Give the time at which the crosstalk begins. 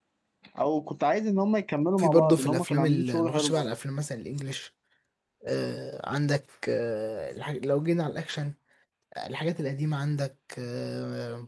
2.0 s

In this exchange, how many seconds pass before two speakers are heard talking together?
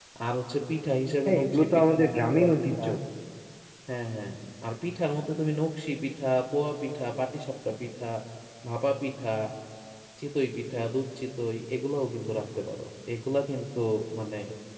1.2 s

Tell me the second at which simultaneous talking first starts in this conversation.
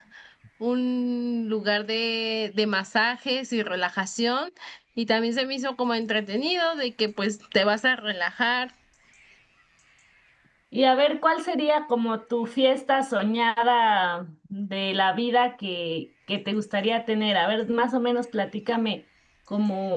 none

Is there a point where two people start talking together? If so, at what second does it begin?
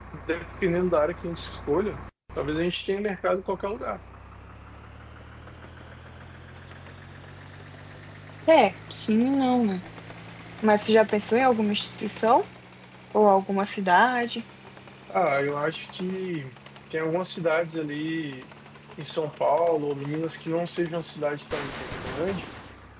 none

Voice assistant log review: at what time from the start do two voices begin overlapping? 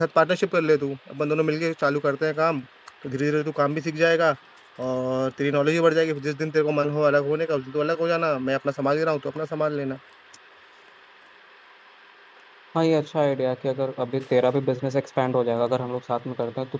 none

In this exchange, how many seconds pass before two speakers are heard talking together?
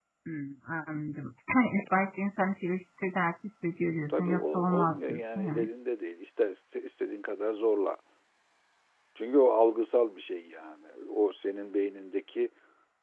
4.1 s

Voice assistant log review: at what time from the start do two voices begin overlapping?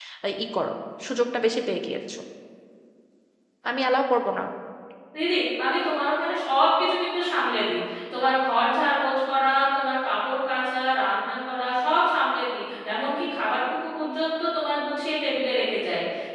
none

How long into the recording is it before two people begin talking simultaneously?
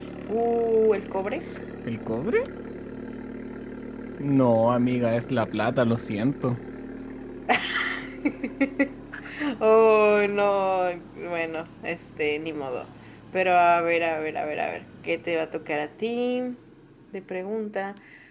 none

